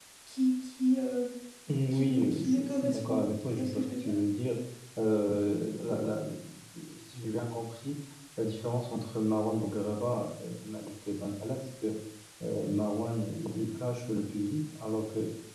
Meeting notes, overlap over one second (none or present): present